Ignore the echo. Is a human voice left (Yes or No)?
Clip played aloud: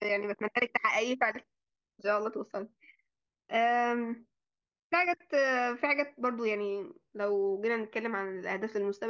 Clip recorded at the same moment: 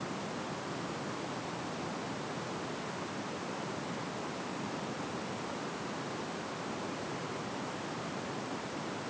No